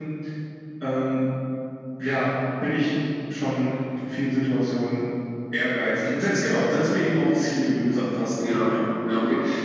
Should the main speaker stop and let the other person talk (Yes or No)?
Yes